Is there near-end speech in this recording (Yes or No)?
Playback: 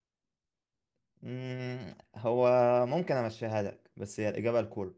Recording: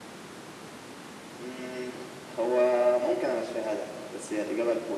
No